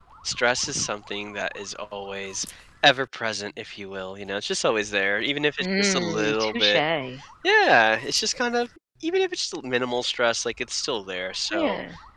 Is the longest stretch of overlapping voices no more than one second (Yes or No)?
No